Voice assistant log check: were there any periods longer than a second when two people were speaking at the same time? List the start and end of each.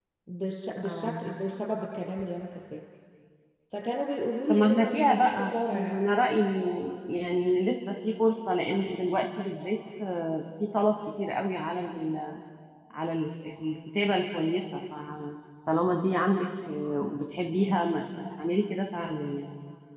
4.5-6.0

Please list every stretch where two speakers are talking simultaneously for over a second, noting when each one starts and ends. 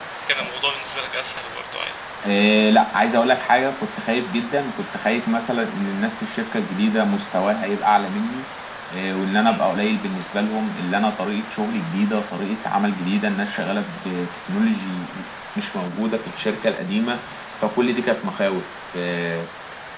none

